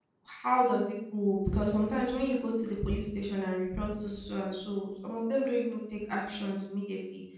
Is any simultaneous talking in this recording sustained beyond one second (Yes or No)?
No